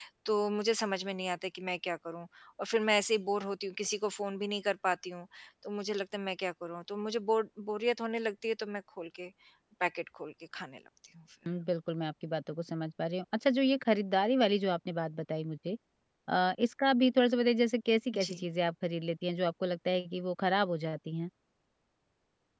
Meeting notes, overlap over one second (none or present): none